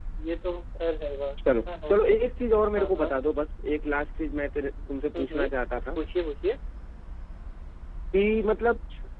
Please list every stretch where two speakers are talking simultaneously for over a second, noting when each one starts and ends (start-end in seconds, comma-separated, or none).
none